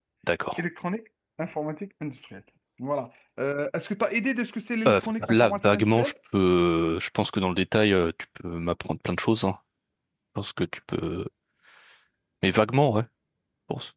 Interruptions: present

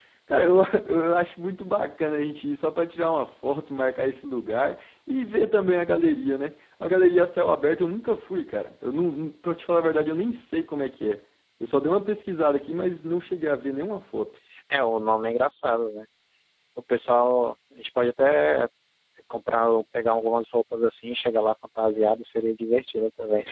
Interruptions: none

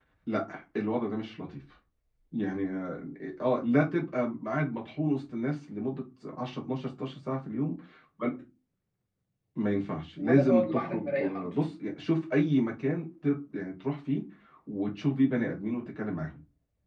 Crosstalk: present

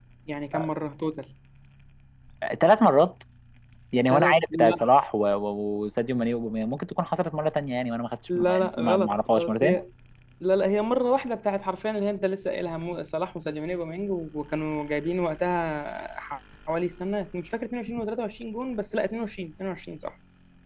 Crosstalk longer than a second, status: present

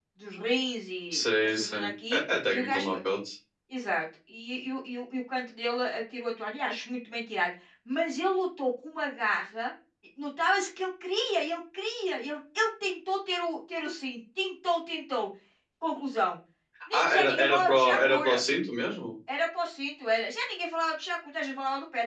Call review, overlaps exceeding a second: present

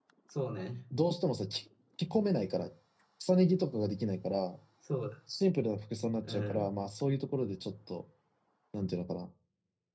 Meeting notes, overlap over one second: none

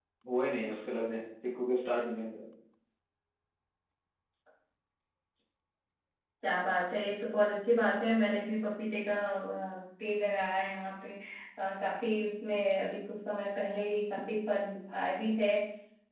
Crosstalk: none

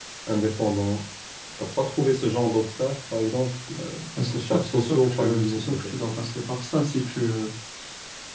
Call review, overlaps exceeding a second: present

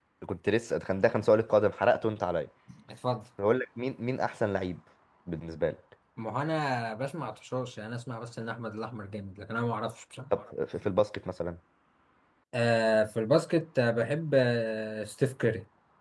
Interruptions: none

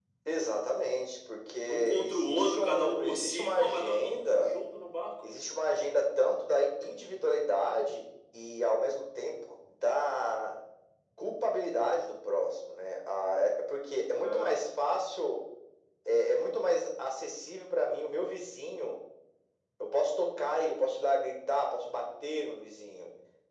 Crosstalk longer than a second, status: present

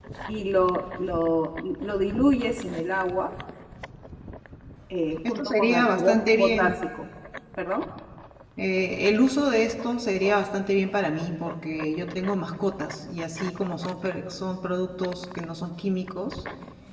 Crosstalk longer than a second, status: present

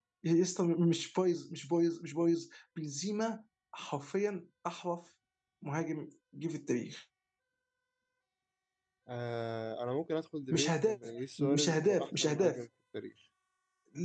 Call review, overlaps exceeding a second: present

